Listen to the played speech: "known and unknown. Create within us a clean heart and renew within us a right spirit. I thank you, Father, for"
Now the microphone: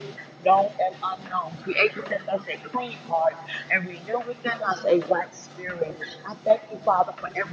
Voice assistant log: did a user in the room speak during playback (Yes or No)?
No